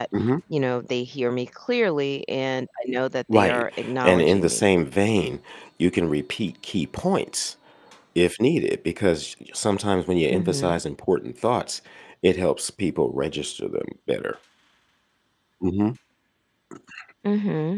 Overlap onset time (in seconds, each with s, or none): 3.3 s